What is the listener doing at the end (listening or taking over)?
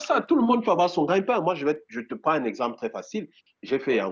listening